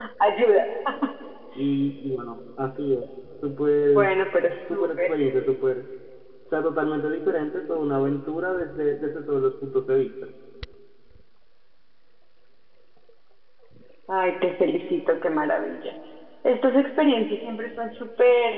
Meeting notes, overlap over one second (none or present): none